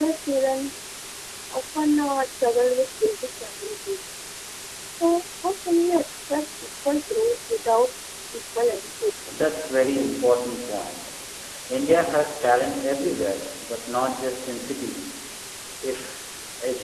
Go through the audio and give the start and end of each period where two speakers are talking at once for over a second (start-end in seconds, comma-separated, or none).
none